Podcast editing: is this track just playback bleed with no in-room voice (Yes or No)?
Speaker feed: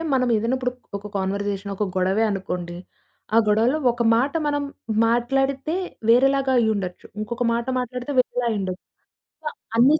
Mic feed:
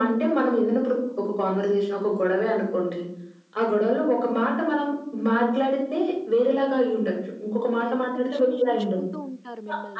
No